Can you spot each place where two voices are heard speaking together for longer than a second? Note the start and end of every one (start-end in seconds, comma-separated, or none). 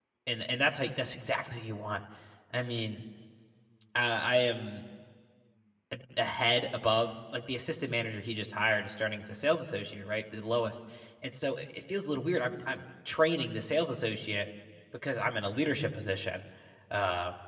none